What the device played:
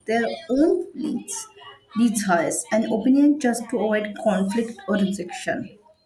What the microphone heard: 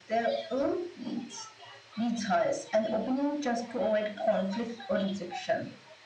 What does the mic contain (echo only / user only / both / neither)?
echo only